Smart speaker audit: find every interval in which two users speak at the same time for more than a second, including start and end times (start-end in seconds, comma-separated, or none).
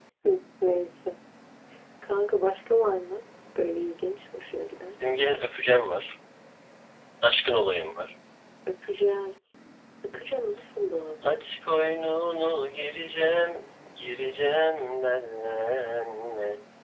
none